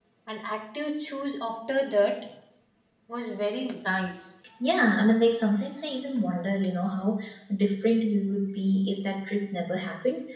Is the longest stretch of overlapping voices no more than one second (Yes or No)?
Yes